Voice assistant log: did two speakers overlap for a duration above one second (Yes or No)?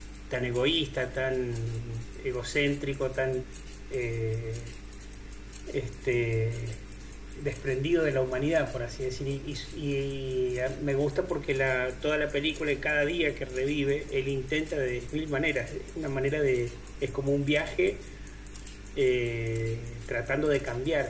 No